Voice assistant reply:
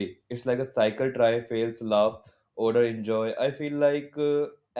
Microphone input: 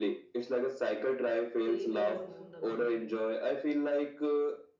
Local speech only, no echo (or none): they never ruin the meal